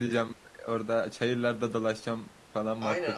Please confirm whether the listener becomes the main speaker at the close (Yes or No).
Yes